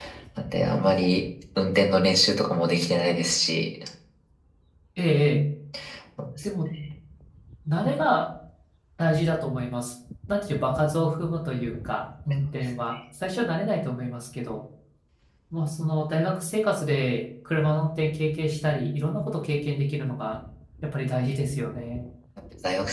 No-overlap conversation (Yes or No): Yes